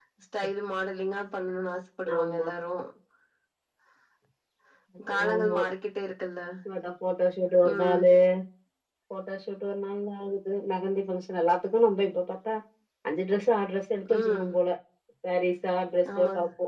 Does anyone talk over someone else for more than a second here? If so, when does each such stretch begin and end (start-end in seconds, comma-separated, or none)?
none